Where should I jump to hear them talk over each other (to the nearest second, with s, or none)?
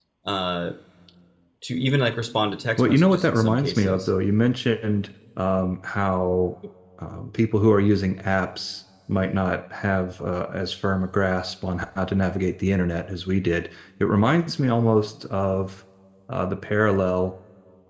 3 s